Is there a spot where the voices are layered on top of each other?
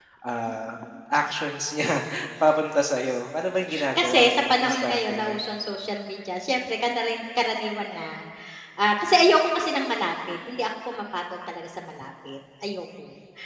Yes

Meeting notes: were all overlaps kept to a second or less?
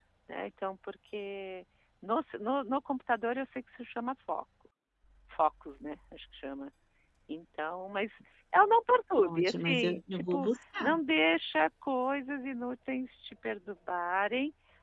No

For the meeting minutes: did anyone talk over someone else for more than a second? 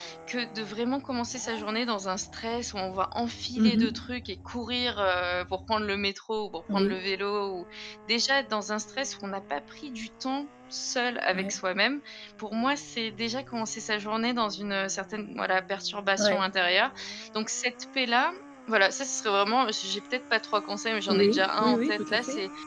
Yes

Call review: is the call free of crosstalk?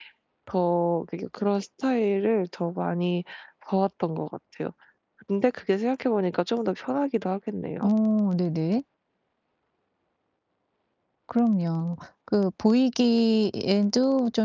Yes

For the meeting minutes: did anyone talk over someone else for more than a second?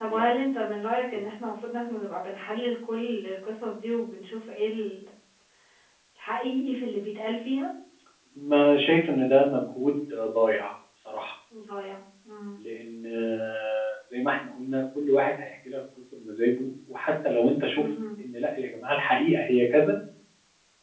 No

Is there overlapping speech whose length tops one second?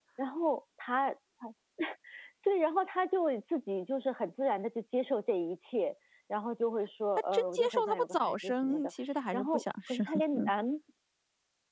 Yes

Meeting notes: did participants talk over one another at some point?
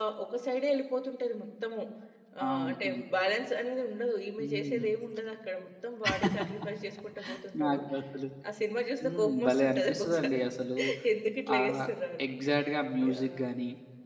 Yes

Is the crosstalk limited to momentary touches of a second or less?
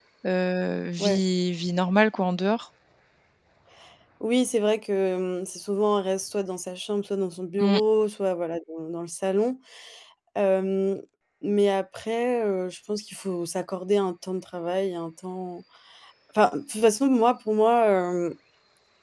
Yes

